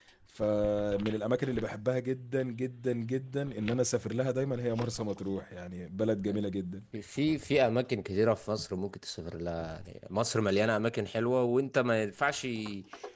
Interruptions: none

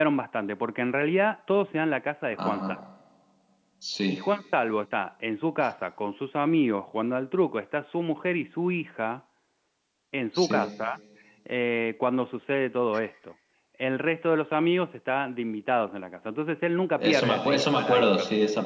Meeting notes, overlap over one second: present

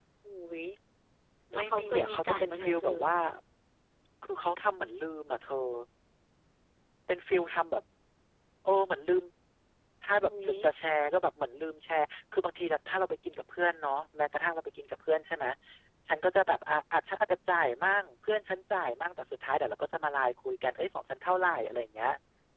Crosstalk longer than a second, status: present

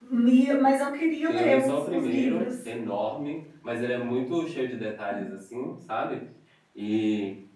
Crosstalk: present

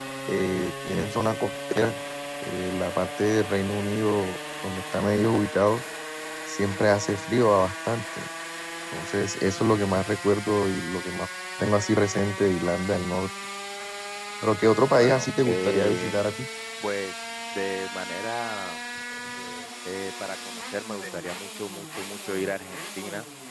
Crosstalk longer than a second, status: present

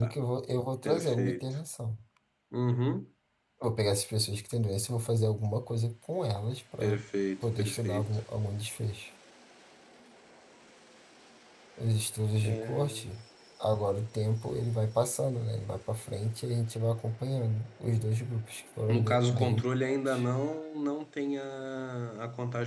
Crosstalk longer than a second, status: present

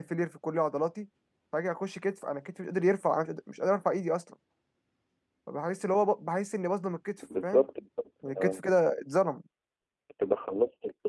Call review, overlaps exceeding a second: none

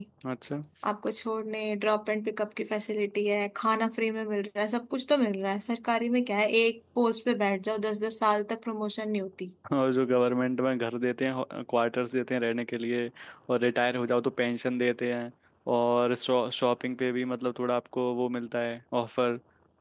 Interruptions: none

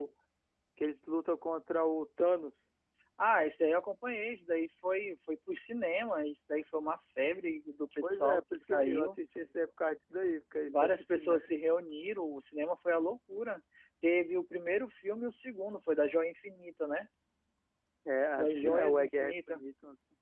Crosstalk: present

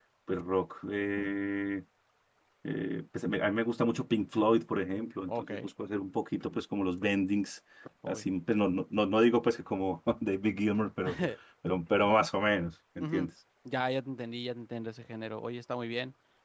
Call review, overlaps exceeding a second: none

